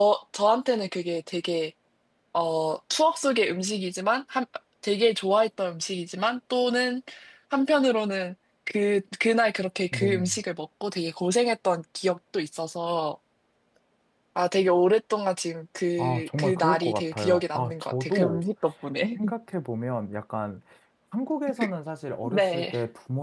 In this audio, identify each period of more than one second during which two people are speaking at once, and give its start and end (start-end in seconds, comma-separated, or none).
16.0-18.4